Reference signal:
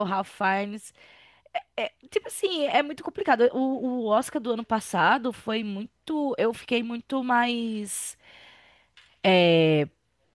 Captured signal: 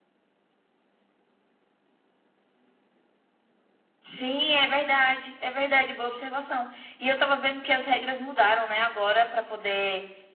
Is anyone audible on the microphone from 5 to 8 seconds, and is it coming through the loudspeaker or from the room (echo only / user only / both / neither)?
user only